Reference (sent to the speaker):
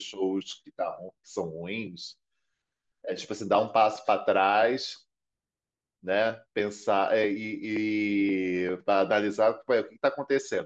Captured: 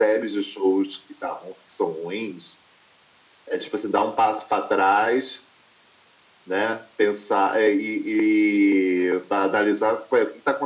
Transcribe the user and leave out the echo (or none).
none